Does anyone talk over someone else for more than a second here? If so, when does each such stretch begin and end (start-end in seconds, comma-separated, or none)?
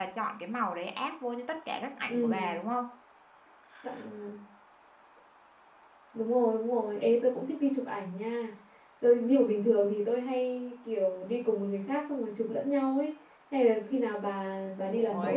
none